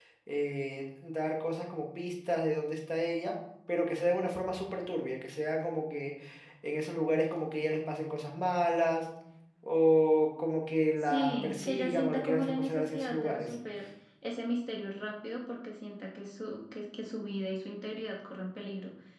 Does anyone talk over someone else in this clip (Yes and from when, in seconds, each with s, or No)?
Yes, from 11.0 s